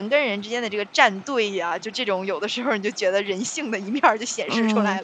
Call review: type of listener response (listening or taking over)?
taking over